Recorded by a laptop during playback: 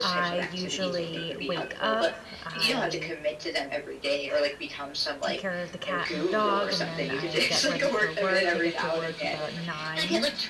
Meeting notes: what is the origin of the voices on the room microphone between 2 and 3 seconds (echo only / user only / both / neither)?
both